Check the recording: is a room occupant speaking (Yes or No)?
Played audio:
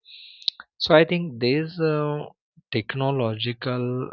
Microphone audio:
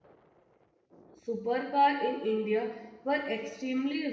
Yes